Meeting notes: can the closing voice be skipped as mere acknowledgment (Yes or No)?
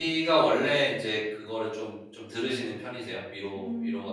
No